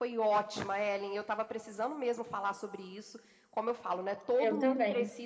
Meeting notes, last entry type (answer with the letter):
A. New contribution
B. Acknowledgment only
B